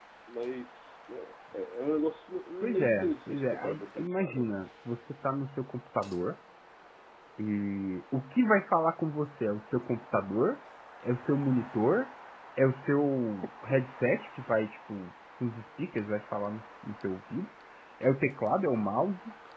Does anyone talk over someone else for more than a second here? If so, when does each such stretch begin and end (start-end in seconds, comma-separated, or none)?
2.6-4.5